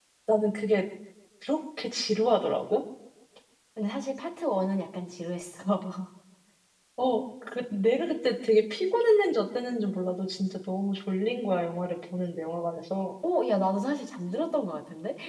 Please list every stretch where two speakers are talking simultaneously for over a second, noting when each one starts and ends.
none

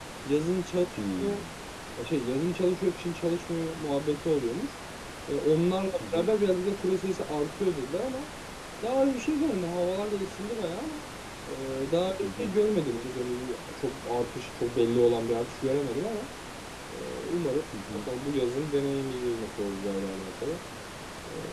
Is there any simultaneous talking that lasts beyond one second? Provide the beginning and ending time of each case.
none

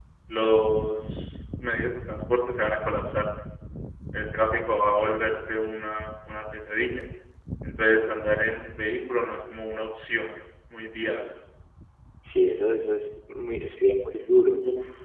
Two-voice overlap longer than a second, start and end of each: none

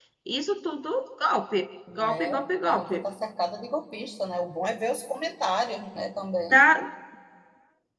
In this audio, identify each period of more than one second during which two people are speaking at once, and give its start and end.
none

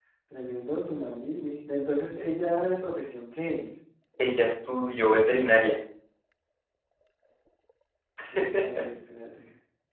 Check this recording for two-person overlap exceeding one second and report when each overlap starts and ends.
none

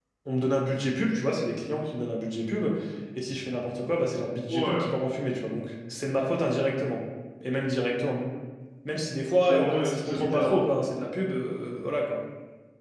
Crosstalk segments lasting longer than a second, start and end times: 9.4-10.7

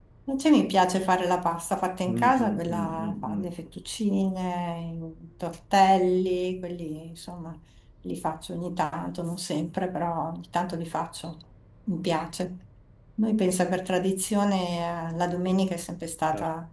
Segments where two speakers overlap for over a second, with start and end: 2.0-3.5

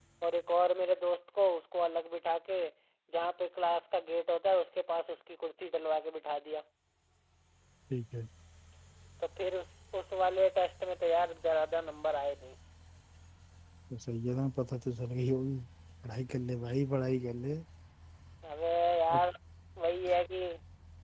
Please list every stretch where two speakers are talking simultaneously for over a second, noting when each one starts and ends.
none

